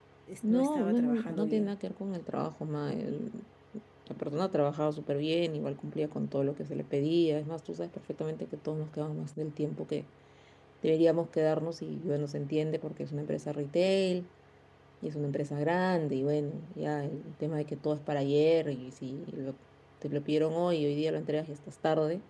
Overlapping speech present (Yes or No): Yes